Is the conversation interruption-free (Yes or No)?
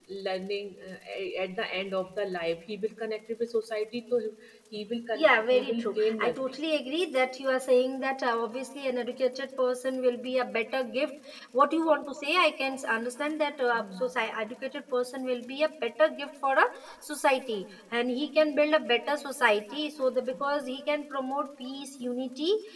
No